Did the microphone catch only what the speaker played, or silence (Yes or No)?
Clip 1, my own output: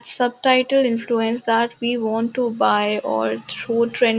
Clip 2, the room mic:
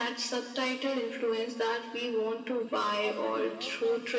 No